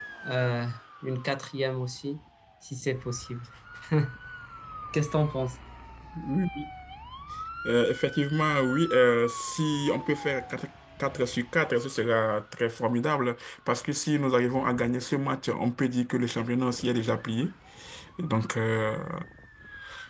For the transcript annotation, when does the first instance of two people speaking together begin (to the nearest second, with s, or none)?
none